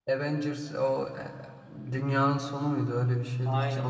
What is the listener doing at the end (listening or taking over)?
taking over